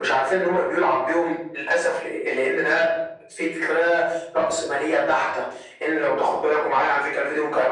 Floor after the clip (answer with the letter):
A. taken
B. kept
B